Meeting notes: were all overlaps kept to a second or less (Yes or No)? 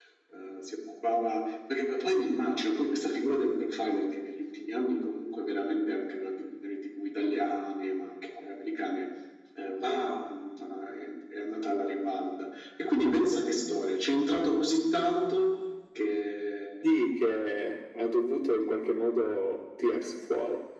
Yes